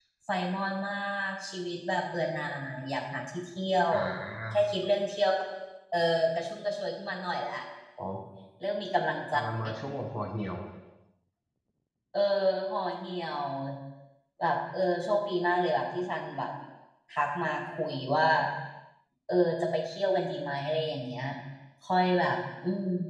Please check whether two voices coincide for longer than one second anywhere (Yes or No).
No